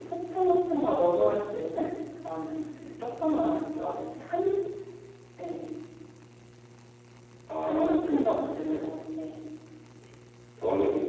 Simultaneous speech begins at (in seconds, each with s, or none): 7.6 s